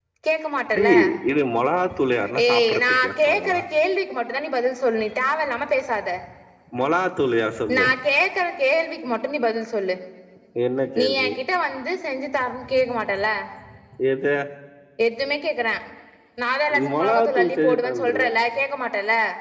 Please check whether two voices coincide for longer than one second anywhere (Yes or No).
Yes